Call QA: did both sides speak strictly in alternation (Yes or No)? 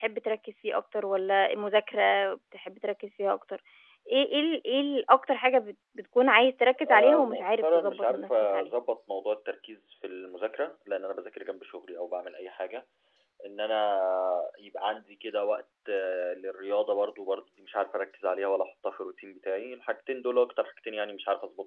No